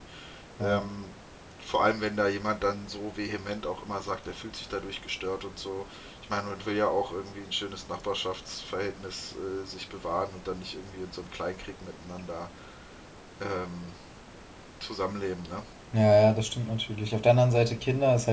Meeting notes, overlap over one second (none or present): none